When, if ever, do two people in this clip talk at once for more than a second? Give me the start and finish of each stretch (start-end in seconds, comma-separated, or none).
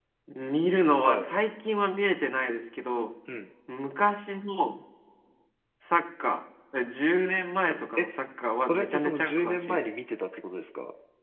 8.5-9.9